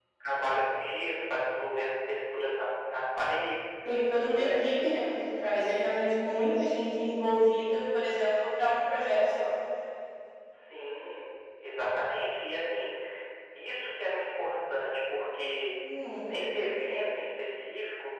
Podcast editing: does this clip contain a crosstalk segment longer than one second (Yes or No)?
No